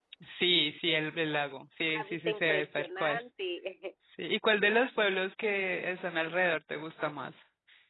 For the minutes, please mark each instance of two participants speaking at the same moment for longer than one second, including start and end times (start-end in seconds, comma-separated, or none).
1.9-3.2